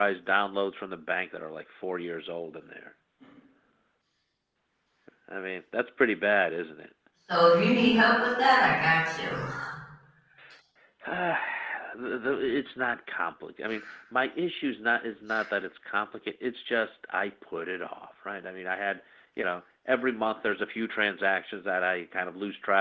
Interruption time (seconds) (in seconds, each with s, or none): none